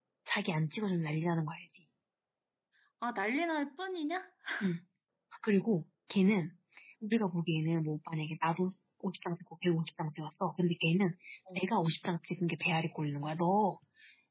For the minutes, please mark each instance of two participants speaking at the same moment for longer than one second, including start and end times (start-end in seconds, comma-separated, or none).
none